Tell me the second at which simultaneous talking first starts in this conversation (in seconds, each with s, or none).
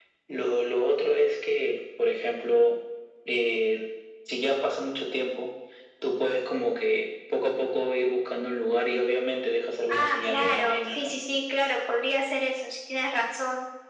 9.9 s